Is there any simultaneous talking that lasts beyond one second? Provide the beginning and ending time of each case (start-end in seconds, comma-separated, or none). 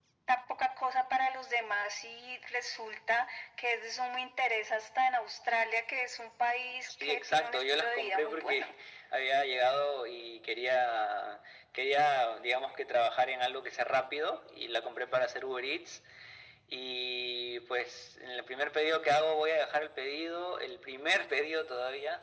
7.0-8.7